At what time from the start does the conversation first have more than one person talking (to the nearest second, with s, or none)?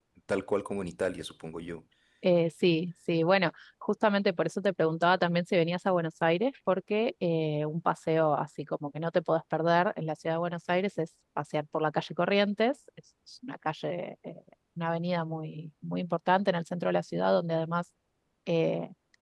none